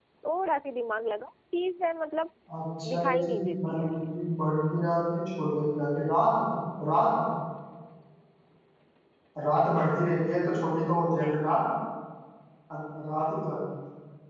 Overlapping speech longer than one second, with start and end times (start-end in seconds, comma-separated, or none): 2.9-4.1